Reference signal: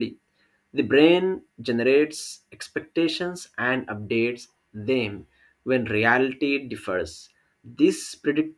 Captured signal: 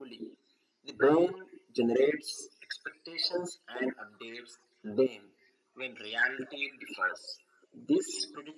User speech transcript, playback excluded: none

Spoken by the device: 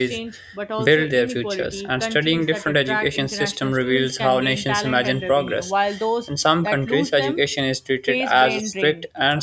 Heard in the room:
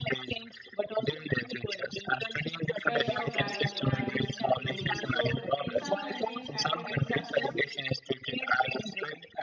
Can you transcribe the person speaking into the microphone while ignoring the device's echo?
pressure vary, varies globally so in some countries academic success

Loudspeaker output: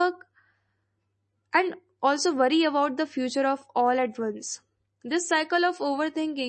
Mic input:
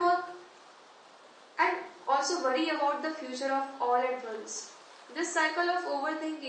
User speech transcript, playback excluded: none

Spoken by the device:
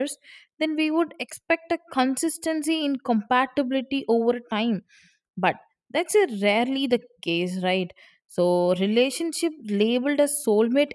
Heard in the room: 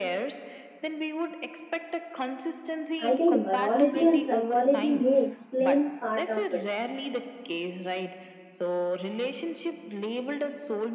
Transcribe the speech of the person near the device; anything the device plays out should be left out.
I think biology and psychology may explain part of it,

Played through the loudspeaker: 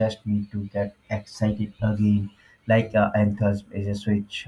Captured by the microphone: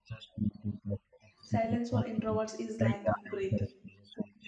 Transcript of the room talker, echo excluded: Silence for introverts is like breathing,

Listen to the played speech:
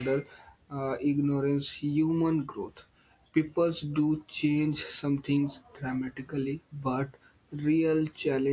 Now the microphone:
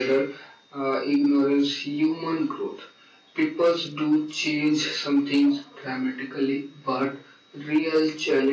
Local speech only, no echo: none

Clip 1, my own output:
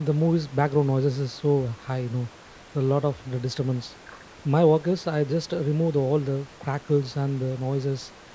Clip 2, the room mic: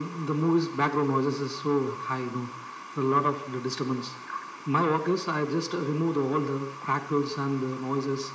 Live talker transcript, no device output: none

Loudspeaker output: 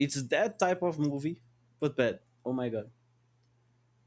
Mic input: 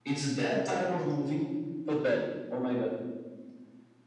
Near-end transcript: none

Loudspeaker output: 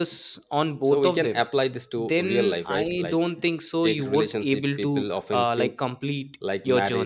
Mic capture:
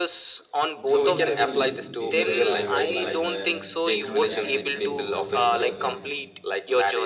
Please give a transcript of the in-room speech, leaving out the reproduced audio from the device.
do you have any period of time in your life where looking back you think those days were the best

